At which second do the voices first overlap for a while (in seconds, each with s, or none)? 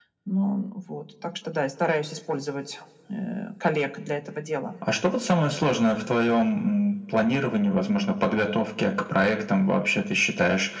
none